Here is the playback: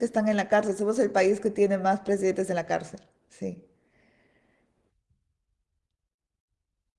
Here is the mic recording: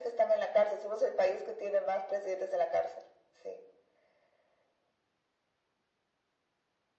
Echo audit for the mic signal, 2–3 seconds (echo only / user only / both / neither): echo only